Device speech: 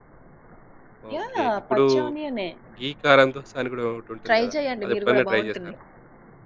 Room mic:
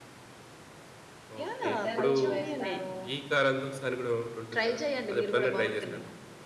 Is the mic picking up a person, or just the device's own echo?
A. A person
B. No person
A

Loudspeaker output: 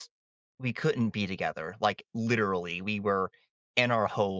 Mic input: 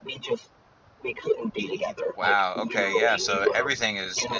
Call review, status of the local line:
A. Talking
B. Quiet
A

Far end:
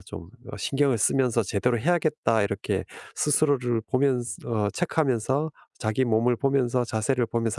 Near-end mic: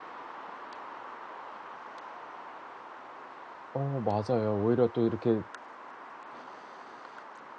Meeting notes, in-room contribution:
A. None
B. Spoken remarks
B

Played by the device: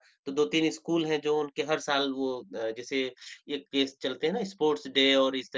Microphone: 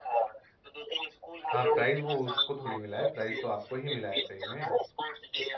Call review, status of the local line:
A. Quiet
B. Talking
B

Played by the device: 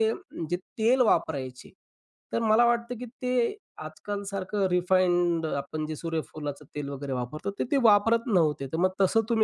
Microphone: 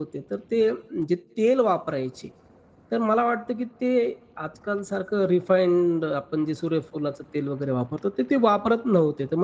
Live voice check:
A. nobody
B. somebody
A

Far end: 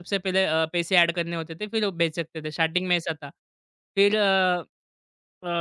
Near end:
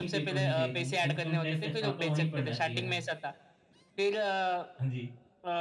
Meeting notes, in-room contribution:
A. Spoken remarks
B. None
A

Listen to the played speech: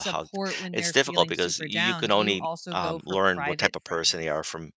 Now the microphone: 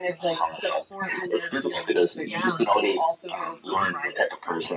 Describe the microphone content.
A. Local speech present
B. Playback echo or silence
B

